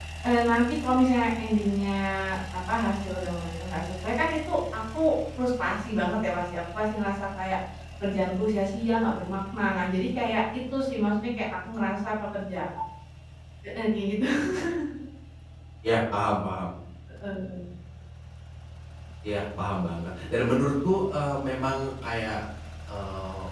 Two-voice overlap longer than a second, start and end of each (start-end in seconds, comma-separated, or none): none